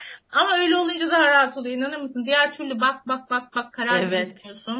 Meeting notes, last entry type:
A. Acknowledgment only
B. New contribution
B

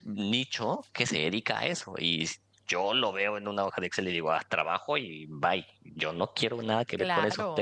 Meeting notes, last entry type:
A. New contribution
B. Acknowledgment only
B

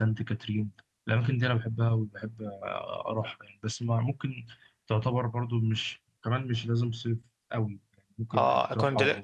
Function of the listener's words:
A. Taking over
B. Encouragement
A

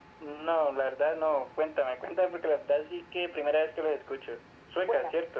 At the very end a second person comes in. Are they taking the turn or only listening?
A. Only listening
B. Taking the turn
B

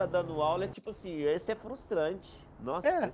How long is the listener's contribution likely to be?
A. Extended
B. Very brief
A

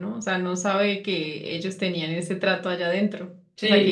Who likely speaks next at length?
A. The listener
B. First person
A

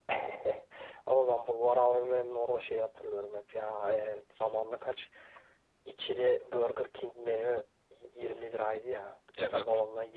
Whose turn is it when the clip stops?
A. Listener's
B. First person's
B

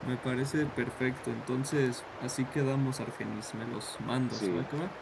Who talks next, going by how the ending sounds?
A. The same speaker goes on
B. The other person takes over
B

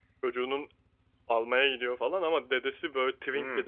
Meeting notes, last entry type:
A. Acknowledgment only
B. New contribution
B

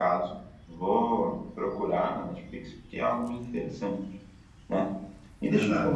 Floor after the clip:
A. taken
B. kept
B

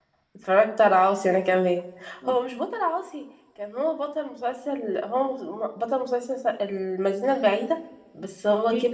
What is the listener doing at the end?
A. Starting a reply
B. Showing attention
A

